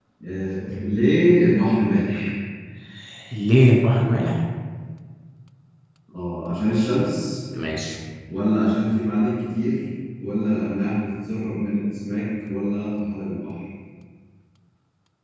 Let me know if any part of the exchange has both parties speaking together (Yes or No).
No